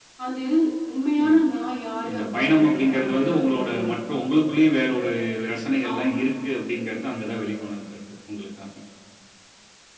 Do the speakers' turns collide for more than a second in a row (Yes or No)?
Yes